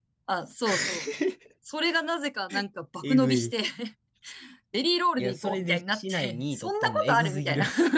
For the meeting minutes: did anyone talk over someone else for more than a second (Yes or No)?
Yes